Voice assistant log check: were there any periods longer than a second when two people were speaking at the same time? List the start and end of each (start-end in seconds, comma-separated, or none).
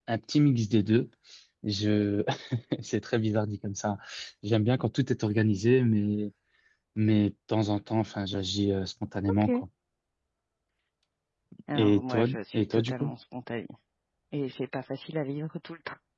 11.8-13.1